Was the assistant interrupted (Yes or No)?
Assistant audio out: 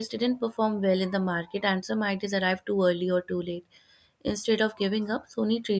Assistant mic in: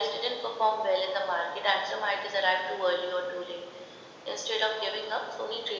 No